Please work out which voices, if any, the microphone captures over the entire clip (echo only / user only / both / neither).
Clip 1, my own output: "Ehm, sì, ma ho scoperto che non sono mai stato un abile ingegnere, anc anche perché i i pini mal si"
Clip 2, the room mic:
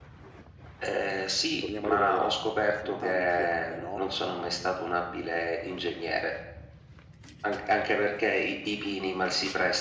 both